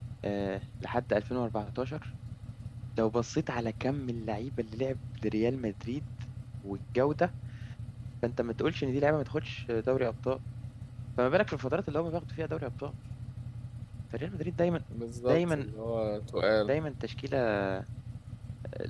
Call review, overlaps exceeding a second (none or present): none